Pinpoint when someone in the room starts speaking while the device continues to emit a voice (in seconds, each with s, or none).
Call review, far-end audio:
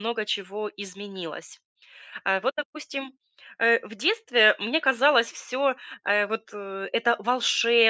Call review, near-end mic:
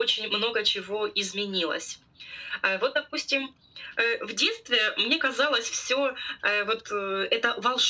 none